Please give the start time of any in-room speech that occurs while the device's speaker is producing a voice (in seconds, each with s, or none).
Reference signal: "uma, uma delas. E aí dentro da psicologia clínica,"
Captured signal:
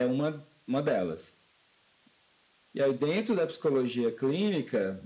none